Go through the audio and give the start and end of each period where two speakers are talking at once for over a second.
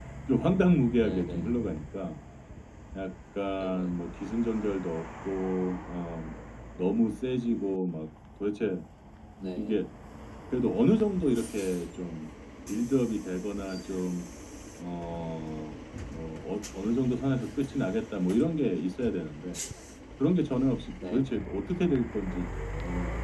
none

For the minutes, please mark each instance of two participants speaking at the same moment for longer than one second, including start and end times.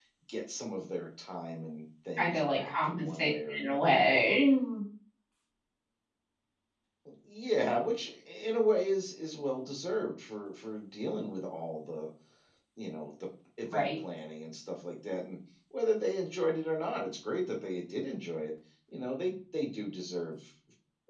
2.2-4.2

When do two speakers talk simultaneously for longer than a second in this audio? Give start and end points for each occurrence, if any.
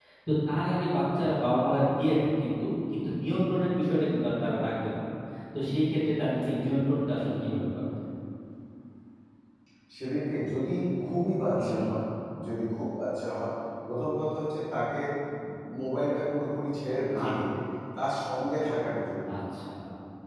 none

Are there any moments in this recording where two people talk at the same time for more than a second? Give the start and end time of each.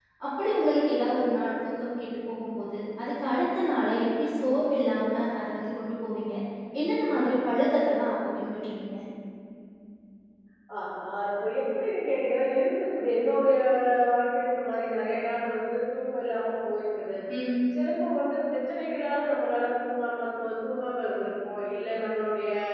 none

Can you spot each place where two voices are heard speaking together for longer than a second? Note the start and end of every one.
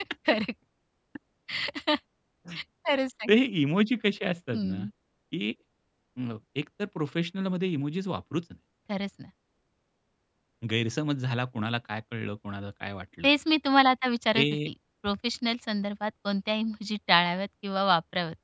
none

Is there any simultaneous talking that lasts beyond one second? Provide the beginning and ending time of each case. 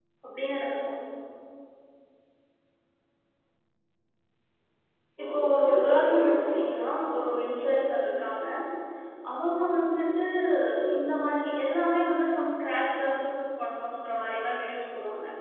5.2-6.8

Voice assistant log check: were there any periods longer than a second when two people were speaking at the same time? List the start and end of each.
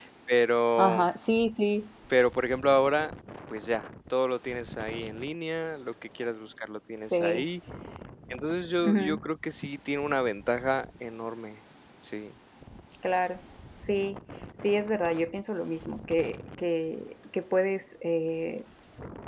none

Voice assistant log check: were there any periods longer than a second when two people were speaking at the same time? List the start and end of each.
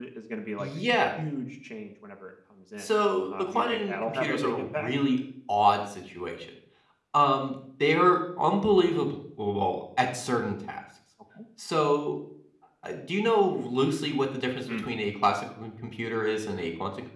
3.4-4.9

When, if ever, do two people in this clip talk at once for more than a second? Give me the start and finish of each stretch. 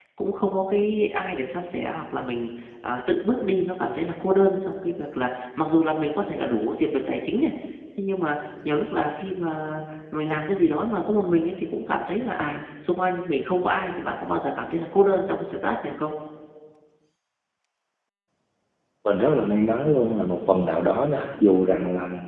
none

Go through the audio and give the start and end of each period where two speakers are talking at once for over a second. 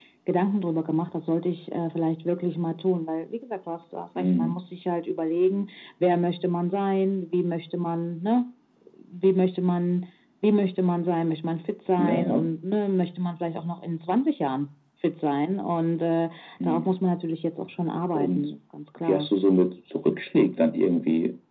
none

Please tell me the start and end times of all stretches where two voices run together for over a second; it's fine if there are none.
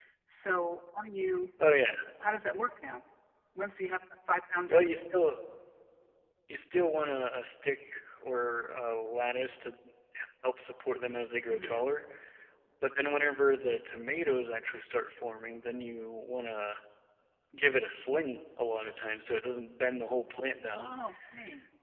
none

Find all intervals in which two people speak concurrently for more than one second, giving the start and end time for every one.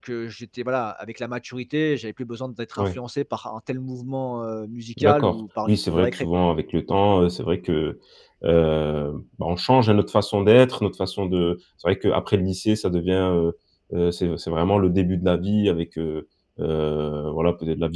5.0-6.3

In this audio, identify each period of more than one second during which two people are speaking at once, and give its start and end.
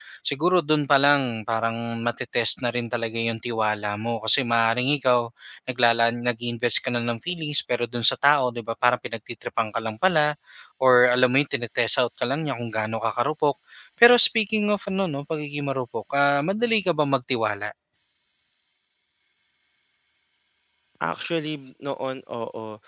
none

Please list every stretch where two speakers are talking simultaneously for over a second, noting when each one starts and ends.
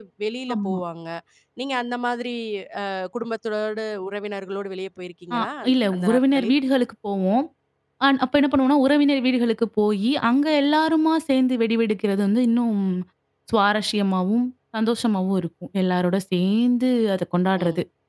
5.3-6.5

